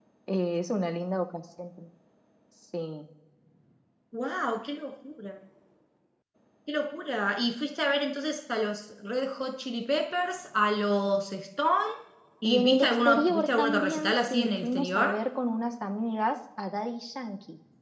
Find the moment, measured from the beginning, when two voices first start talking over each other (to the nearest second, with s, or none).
12 s